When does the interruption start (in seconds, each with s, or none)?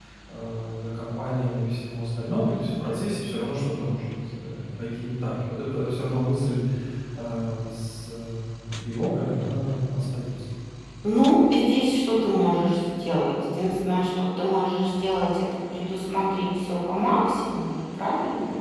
none